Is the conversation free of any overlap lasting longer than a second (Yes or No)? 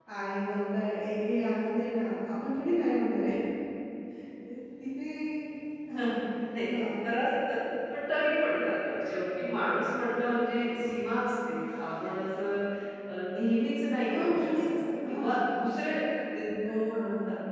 No